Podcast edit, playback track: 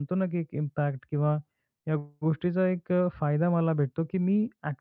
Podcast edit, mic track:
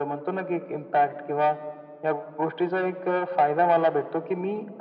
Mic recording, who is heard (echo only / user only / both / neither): echo only